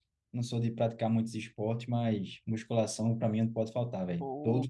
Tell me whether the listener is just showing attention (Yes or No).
No